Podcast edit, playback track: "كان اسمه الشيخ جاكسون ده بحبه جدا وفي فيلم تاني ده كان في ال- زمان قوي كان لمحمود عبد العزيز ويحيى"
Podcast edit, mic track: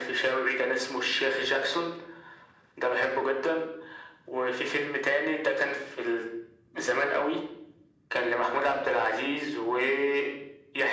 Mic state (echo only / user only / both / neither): echo only